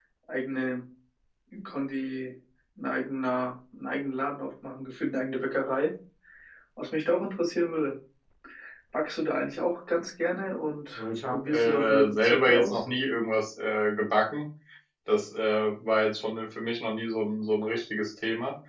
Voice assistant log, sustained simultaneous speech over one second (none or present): present